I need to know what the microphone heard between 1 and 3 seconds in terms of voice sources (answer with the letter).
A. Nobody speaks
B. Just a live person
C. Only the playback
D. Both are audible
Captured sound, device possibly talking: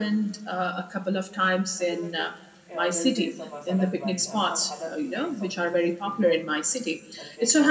D